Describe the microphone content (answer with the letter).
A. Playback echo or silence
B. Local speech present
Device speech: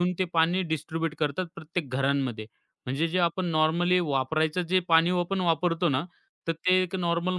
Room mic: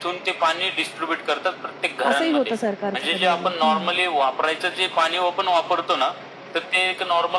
B